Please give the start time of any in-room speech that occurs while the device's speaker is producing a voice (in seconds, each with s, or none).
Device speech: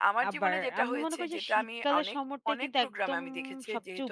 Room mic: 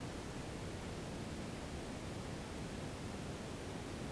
none